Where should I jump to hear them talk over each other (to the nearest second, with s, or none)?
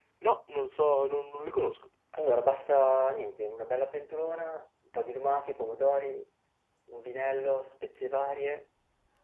none